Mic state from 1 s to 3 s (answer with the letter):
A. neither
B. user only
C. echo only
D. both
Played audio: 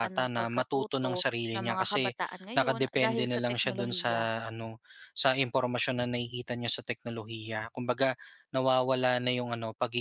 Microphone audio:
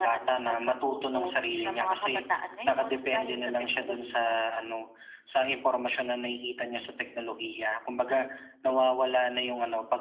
C